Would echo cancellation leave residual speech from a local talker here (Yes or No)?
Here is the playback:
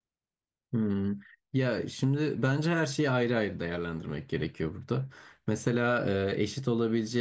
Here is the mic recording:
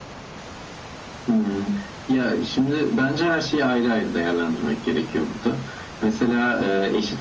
No